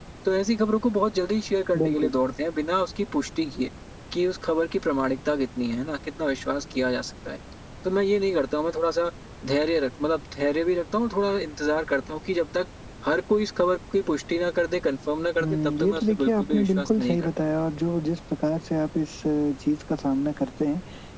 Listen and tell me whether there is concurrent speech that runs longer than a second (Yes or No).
Yes